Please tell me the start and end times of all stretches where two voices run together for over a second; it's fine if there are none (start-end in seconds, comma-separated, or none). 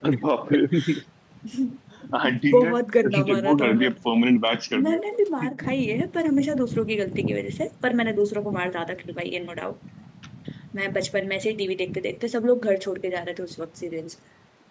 2.5-4.0